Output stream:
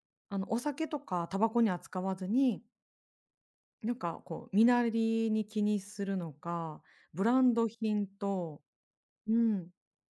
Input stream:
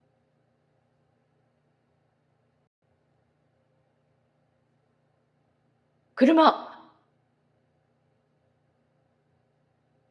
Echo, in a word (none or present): none